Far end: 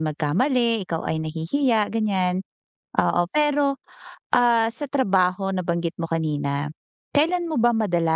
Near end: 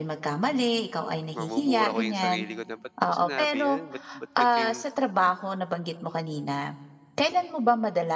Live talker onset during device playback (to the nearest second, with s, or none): 1 s